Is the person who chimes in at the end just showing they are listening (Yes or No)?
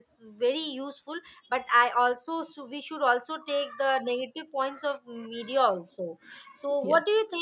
Yes